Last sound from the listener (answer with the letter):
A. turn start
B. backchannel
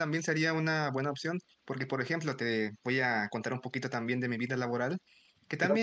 B